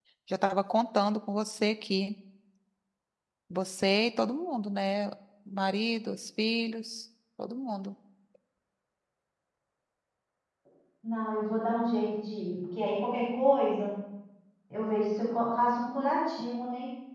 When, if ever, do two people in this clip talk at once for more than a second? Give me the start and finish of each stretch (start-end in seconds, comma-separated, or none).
none